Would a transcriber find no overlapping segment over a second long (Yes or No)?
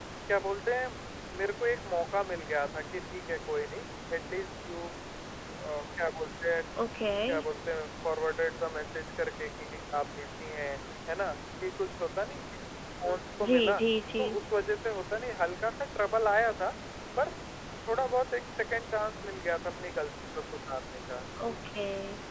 Yes